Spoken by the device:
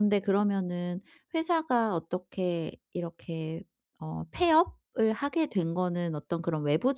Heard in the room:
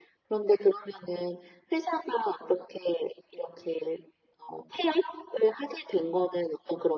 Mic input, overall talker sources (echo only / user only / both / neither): echo only